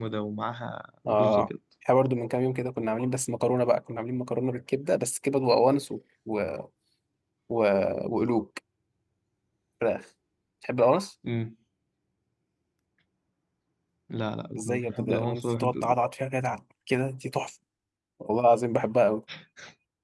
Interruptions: present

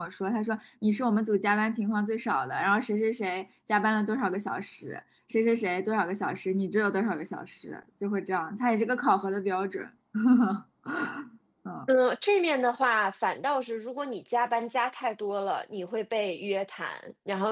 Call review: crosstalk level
none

